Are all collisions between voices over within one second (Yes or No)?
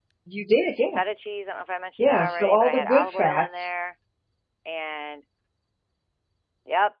No